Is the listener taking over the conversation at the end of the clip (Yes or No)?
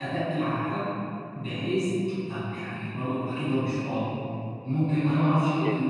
No